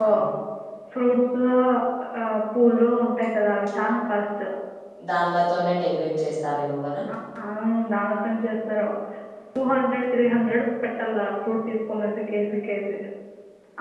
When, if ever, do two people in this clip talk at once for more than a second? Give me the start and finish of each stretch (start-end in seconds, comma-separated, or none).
none